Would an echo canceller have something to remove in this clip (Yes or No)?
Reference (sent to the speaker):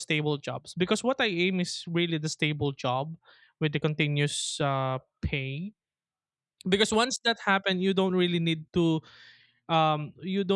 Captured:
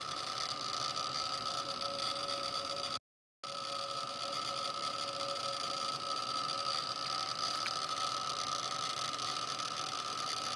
No